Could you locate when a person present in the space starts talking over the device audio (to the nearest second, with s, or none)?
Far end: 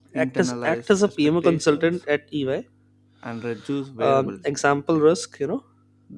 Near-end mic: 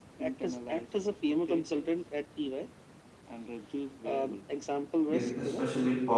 5 s